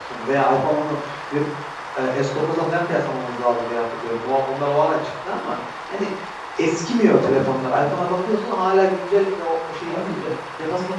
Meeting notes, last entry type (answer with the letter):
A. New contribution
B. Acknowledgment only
B